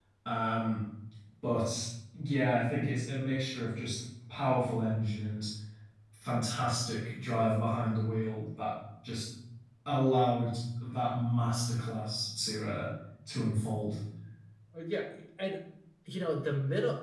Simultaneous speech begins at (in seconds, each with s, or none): none